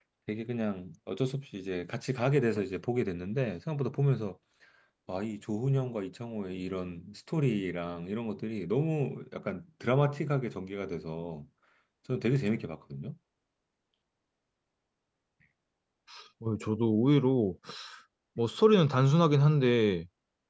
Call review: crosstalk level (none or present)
none